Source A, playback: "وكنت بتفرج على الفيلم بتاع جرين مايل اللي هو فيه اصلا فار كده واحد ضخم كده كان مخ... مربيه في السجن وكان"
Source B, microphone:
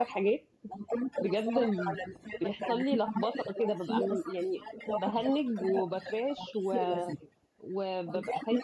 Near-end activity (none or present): present